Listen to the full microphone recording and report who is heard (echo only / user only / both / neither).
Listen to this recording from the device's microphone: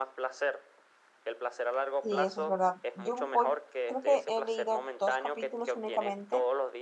both